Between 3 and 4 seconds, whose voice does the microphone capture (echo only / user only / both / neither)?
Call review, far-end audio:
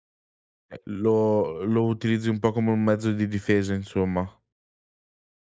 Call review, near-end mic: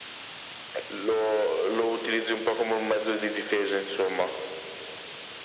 echo only